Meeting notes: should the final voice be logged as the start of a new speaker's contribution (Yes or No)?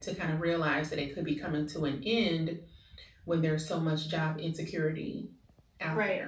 Yes